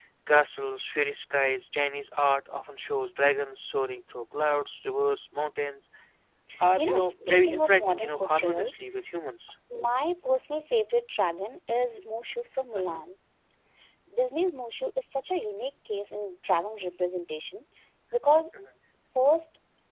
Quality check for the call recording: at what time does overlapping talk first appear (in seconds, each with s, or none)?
6.8 s